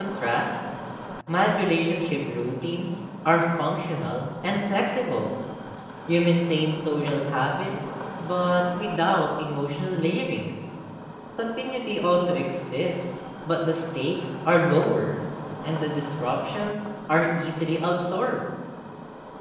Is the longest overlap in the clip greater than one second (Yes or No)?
No